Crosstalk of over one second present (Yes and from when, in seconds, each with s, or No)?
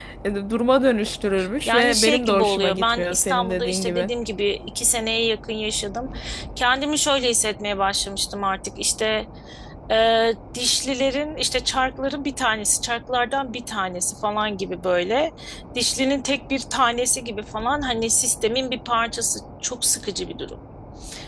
Yes, from 1.6 s